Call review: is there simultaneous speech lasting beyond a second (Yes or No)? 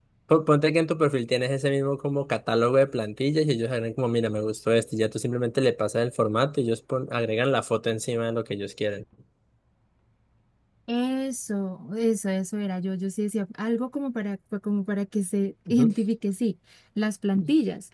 No